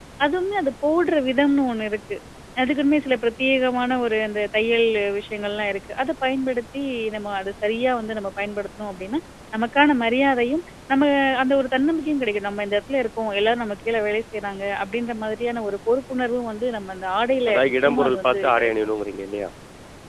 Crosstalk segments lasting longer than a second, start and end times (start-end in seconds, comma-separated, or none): 17.5-18.7